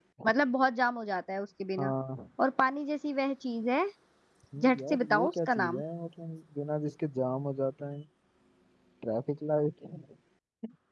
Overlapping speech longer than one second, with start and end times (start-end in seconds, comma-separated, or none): 4.6-5.8